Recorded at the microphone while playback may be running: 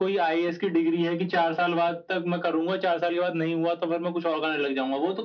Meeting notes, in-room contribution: none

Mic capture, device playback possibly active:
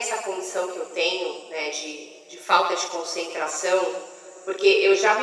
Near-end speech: none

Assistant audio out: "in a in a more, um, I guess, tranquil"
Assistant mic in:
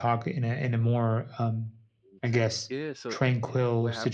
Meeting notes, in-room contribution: present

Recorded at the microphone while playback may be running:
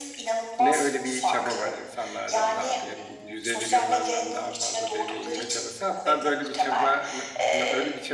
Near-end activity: present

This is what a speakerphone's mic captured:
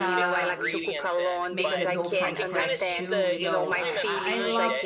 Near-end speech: present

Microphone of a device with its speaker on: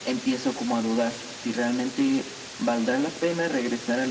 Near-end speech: none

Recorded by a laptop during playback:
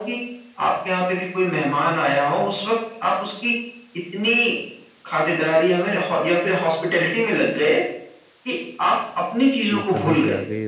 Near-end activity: present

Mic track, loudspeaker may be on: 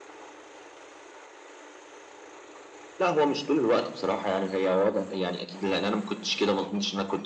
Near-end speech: none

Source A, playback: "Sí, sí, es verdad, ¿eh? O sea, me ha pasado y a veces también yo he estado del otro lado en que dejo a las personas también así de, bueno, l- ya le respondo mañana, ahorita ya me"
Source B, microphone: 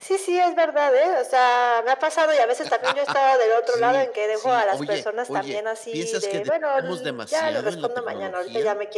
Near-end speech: present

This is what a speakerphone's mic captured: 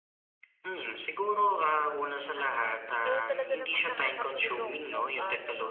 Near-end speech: present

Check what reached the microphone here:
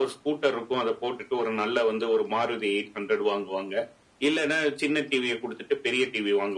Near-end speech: none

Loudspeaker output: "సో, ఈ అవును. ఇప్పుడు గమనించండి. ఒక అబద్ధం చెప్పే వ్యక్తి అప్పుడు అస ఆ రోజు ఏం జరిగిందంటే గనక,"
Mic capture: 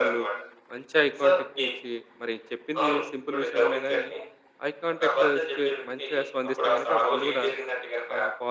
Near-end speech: present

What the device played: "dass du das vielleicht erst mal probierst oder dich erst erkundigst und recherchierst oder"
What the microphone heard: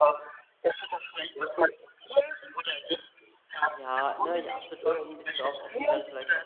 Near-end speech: present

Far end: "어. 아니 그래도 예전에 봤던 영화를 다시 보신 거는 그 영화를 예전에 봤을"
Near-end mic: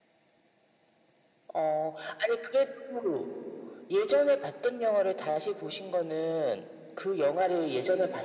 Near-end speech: none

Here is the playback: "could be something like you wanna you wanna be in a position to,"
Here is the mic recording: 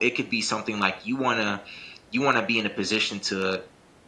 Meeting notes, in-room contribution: none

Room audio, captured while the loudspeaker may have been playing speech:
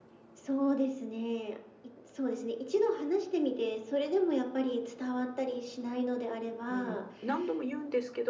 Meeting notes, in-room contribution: present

